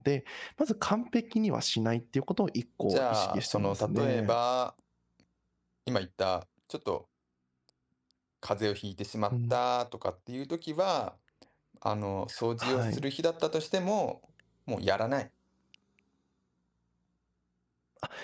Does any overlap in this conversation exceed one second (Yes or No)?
Yes